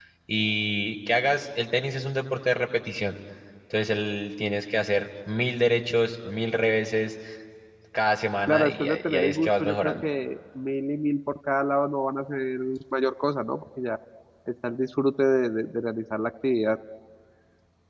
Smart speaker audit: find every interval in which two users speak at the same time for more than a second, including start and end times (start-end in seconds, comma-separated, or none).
8.5-10.1